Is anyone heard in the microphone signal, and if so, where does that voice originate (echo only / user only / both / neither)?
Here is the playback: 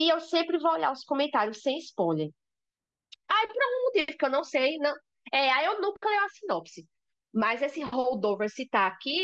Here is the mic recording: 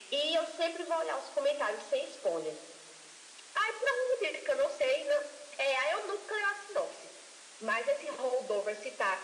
echo only